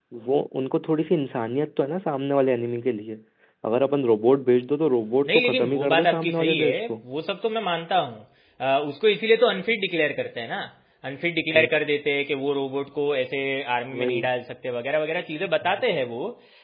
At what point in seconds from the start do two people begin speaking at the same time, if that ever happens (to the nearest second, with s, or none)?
5 s